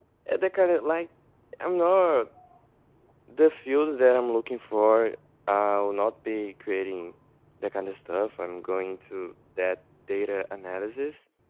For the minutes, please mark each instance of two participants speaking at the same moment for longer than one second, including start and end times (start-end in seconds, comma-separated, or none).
none